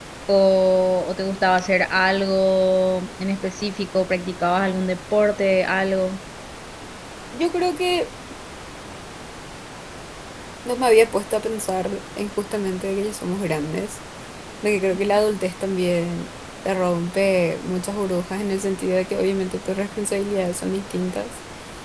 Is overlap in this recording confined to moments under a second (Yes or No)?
Yes